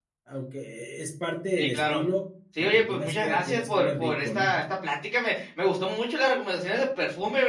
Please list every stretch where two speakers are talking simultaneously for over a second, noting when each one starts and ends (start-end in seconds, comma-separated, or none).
2.6-4.5